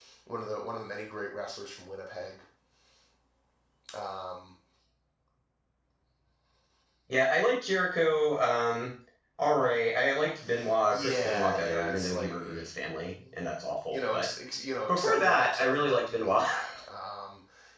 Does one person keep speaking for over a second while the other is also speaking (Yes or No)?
Yes